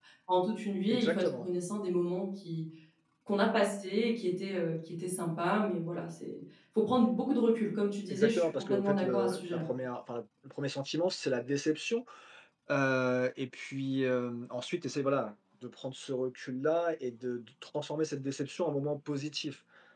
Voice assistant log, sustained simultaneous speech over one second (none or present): present